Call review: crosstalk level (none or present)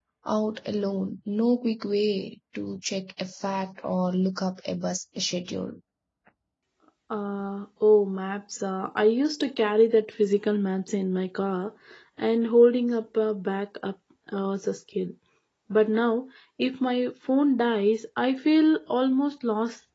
none